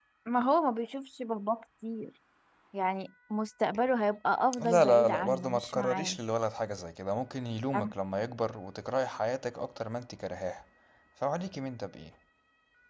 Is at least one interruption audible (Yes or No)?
Yes